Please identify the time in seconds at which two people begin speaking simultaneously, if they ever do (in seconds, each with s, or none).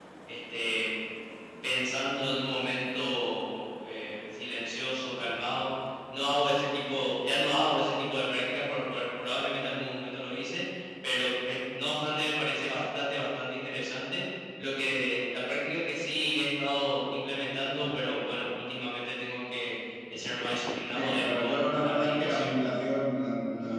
20.9 s